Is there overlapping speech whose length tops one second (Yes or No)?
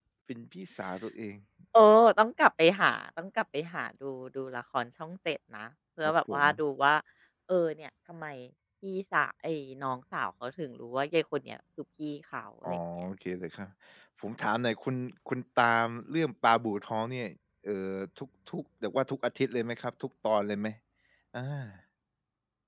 No